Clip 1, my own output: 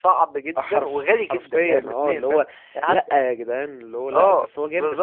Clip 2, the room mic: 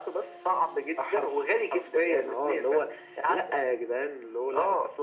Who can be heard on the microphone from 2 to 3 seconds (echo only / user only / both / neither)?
echo only